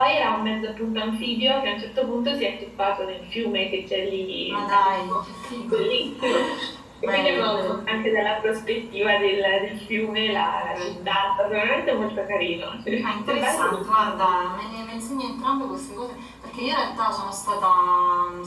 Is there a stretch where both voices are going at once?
Yes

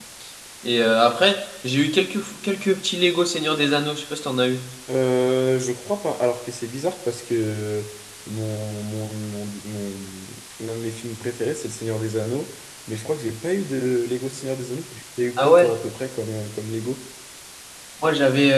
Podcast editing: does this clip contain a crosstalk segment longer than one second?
No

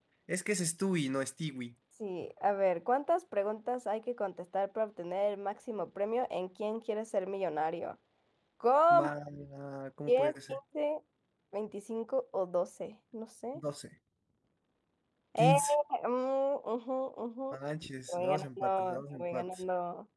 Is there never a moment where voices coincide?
No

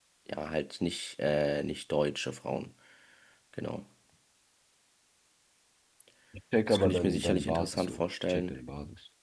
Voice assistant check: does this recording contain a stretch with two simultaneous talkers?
Yes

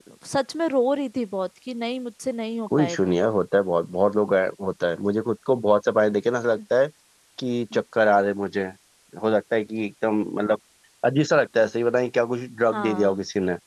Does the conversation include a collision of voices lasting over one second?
No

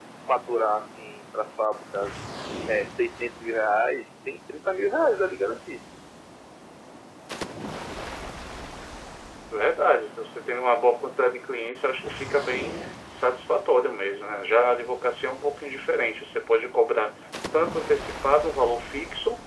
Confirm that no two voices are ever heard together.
Yes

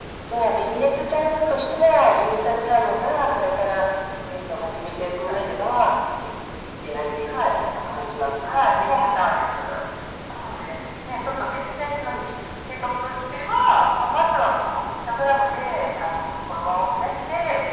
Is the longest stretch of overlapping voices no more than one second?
Yes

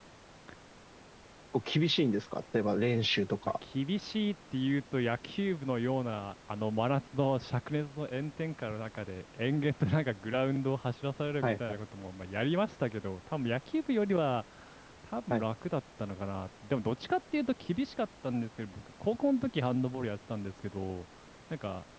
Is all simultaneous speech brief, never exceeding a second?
Yes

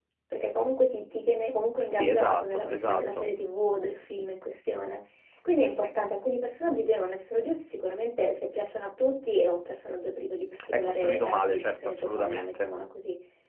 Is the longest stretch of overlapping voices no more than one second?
No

